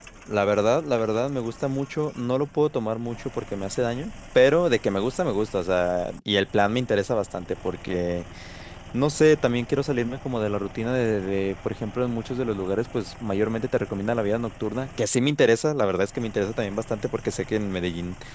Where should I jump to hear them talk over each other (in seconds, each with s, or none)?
none